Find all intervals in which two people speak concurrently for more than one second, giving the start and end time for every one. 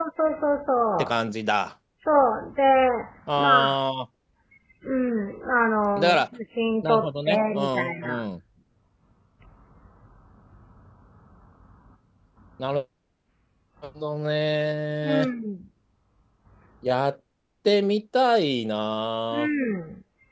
6.8-8.2

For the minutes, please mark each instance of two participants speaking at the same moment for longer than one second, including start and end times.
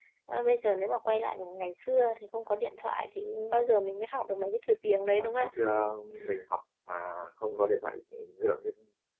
none

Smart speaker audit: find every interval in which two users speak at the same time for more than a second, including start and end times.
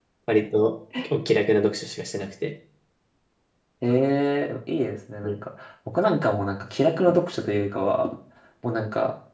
none

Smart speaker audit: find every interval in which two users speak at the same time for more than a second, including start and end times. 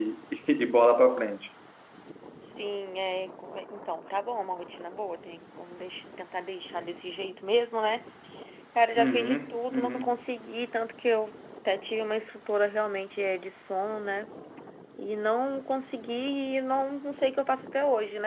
9.0-10.2

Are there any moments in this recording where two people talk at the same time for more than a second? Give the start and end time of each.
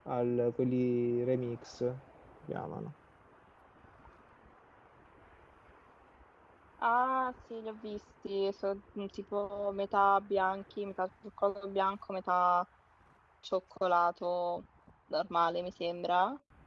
none

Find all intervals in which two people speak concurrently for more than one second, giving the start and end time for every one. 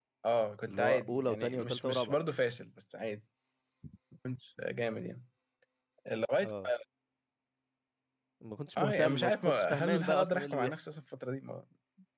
0.7-2.2, 8.8-10.7

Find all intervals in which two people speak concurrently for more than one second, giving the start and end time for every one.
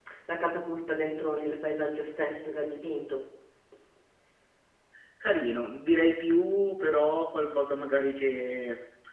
none

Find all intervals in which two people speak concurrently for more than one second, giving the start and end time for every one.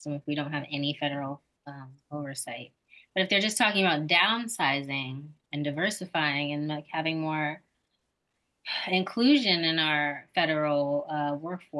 none

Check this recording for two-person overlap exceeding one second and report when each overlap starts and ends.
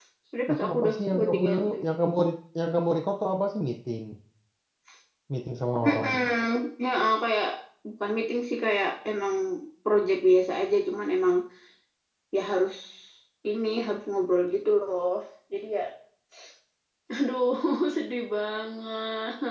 0.5-1.7

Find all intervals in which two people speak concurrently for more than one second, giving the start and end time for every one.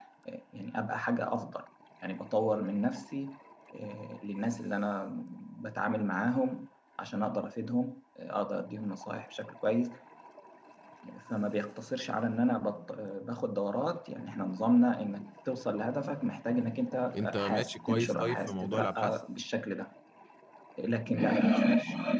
17.1-19.2

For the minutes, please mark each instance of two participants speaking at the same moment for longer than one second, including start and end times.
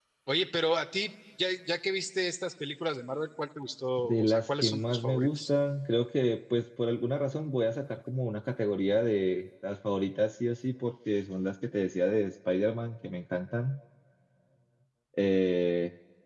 4.0-5.5

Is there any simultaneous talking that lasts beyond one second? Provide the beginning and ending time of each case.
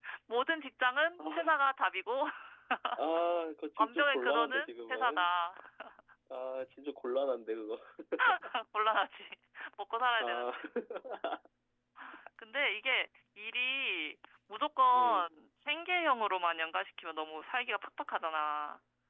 3.8-5.2

